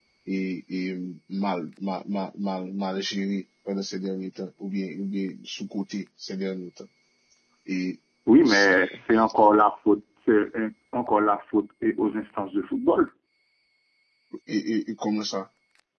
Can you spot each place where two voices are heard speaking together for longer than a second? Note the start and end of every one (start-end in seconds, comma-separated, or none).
none